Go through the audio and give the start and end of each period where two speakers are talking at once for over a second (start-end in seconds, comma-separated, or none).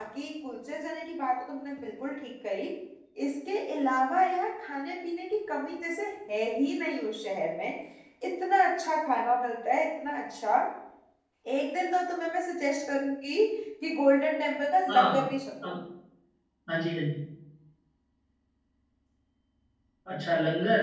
none